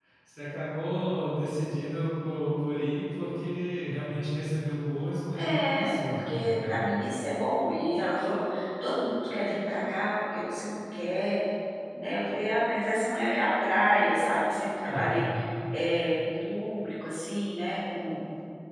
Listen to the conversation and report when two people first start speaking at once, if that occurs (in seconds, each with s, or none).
5.3 s